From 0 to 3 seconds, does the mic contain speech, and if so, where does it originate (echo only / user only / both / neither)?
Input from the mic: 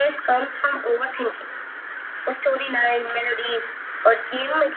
echo only